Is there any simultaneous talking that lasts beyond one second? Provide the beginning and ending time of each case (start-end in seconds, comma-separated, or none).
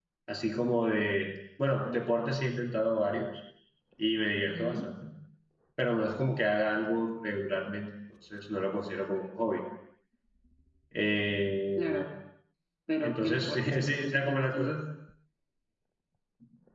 13.0-14.8